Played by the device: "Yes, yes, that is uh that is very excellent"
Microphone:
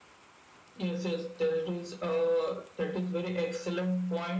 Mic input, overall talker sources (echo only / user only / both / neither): echo only